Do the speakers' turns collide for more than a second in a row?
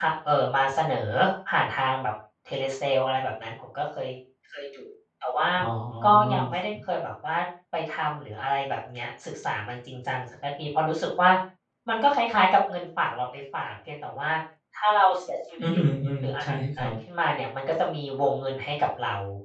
No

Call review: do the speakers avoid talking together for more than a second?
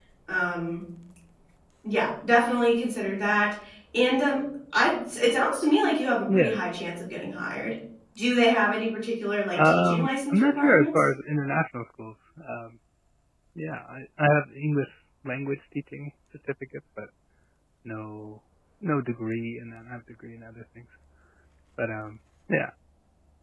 No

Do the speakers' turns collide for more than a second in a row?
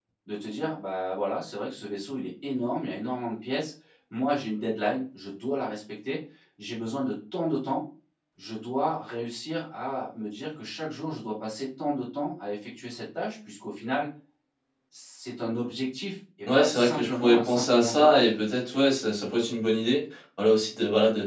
Yes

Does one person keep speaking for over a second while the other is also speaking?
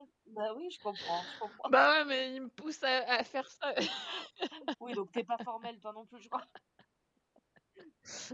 No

